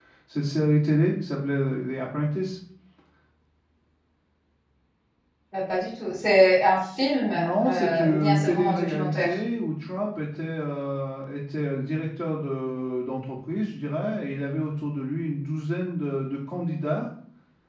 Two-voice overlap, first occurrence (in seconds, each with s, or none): 7.2 s